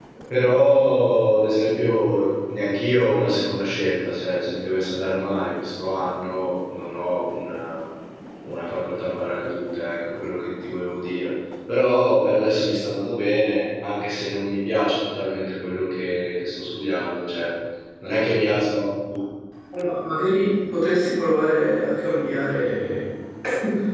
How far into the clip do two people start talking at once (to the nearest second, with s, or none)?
none